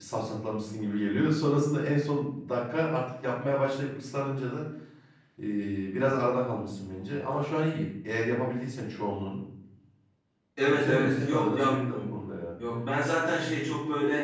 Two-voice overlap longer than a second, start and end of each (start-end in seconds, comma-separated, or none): 10.6-12.1